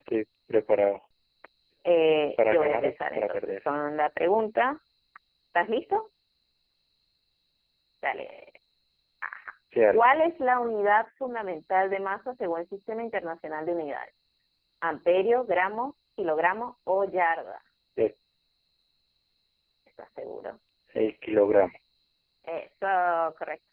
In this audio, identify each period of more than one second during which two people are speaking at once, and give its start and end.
2.4-3.6

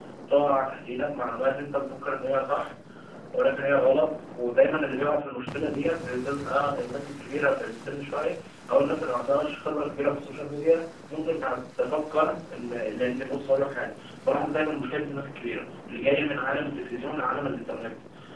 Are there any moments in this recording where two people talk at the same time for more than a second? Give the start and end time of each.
none

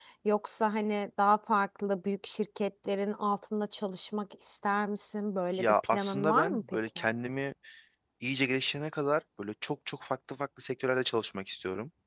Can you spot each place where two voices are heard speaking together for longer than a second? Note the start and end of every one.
5.6-7.0

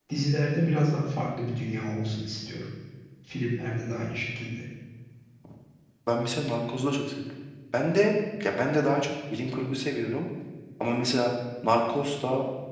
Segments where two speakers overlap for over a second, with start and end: none

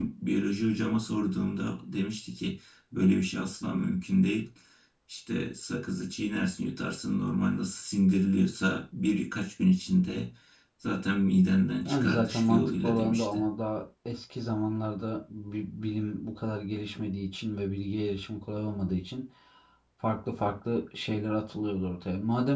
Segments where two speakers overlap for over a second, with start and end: 11.8-13.4

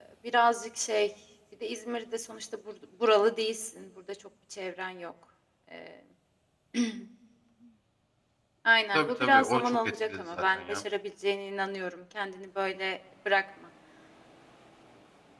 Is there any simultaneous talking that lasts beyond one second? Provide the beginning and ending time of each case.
8.9-10.8

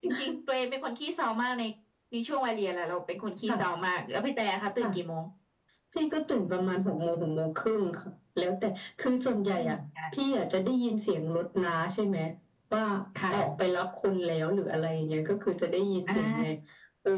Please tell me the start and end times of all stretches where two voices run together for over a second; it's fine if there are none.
none

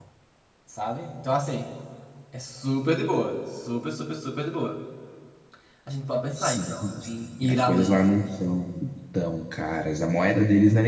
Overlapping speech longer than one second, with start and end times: 6.4-8.0

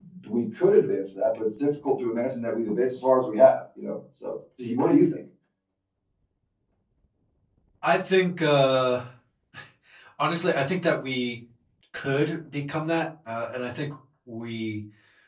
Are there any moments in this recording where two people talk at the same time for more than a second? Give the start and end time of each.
none

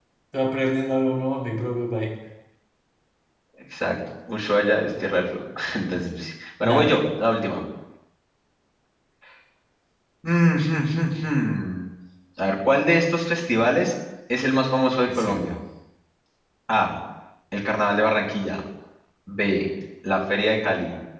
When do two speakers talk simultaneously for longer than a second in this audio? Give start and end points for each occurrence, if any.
none

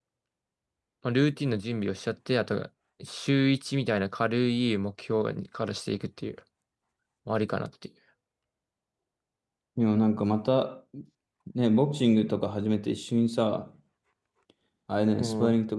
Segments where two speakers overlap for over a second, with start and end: none

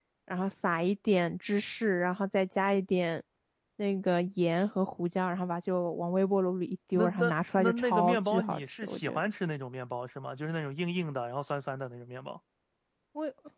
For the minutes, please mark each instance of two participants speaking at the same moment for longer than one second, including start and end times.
6.9-9.3

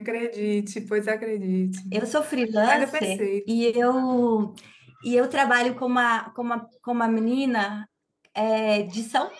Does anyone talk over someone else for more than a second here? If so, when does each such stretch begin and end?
2.6-4.0

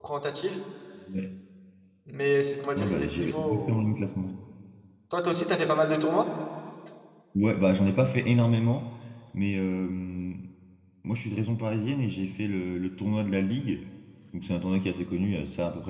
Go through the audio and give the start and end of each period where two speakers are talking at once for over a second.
2.8-4.0

